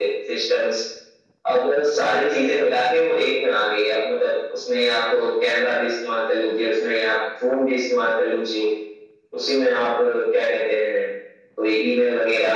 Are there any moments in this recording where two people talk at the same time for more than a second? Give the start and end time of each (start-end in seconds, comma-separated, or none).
none